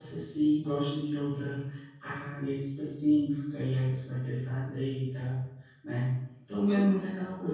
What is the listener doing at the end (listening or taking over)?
listening